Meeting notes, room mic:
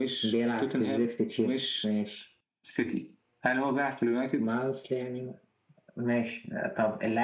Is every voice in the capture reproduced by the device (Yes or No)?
Yes